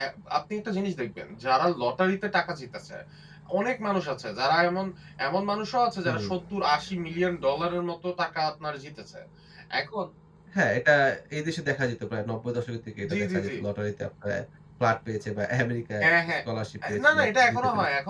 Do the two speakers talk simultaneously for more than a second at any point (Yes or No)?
Yes